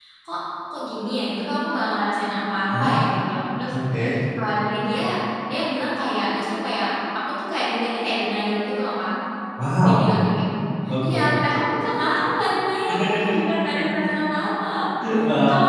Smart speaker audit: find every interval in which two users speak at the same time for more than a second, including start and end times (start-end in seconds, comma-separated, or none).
none